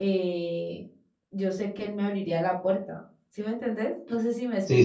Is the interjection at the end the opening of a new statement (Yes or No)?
Yes